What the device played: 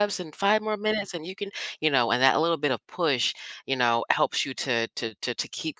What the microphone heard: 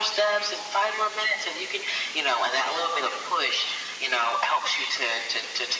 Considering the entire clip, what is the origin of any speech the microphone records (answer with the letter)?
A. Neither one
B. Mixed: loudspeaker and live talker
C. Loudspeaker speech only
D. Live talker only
C